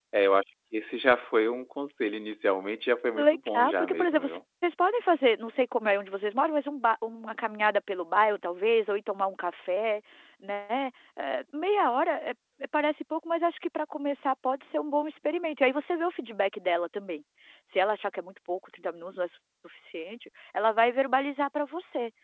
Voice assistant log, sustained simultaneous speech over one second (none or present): present